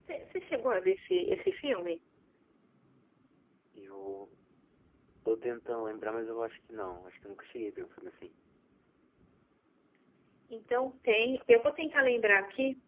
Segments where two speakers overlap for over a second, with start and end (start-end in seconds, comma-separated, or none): none